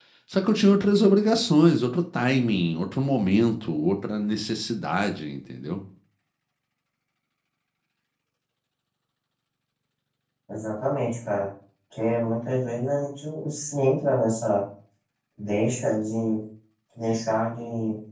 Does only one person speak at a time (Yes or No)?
Yes